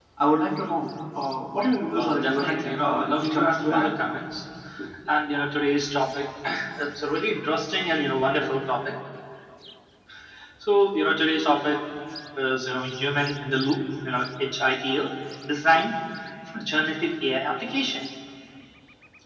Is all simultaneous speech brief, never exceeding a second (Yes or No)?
No